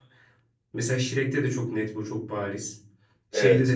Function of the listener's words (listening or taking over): listening